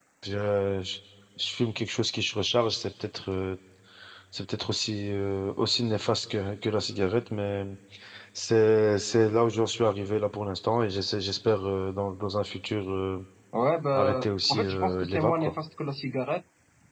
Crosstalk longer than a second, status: present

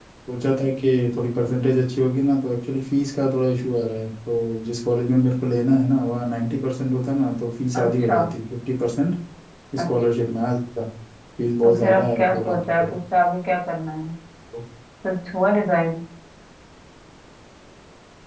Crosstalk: present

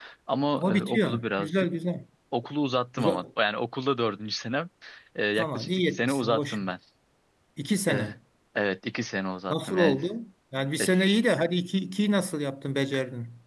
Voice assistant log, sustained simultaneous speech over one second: present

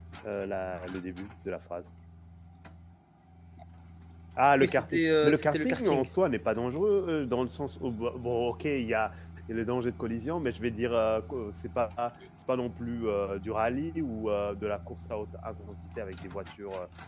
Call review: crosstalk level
present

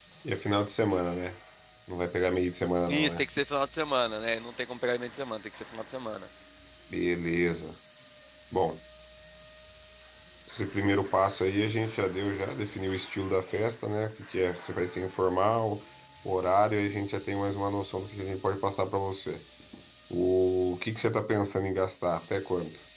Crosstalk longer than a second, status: none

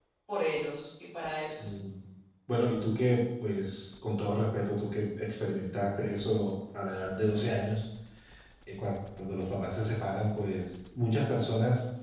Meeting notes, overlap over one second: none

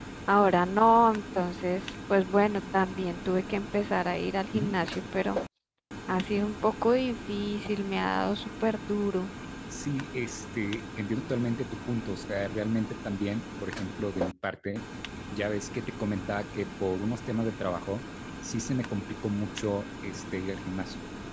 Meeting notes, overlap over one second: none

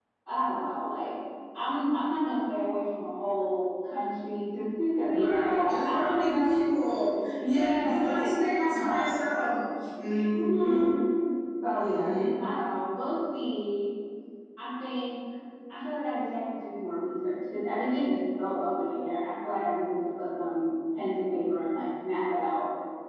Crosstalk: present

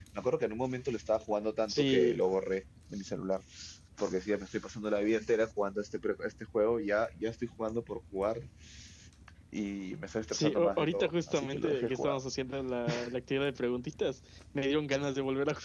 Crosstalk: present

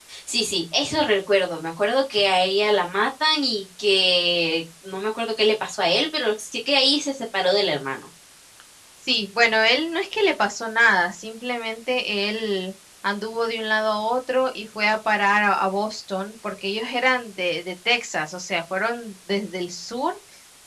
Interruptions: none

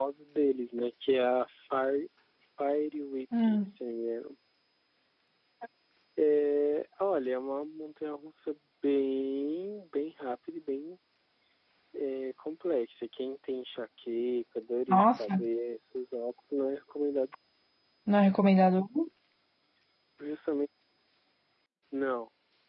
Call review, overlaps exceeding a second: none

